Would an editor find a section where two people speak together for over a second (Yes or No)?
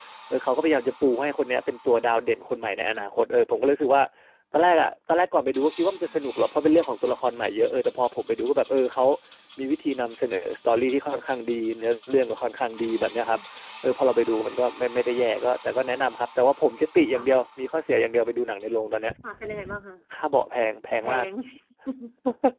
No